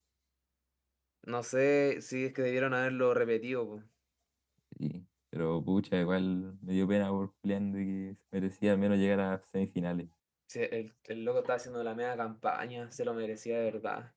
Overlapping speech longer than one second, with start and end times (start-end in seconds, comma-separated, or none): none